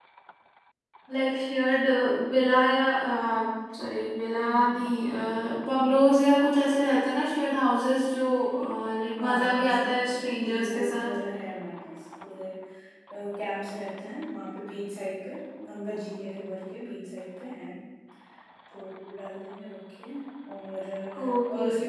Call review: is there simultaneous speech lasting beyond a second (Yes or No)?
Yes